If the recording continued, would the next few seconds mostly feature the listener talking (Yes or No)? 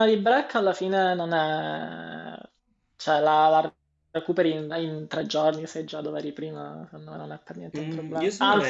Yes